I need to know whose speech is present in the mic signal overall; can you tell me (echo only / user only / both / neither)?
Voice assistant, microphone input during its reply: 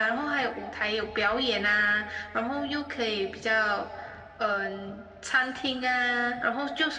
echo only